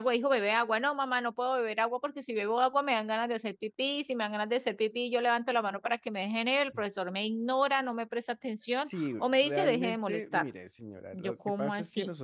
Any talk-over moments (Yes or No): Yes